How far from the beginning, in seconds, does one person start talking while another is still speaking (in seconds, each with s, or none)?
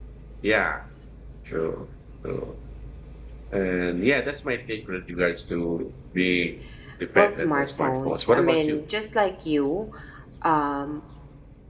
7.2 s